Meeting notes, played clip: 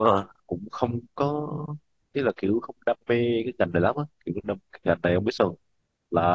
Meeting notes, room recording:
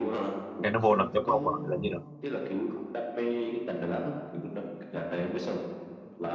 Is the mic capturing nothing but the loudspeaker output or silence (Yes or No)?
No